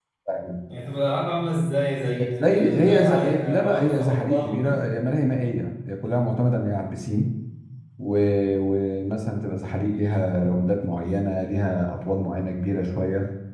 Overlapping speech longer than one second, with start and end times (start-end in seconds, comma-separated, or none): 2.4-4.8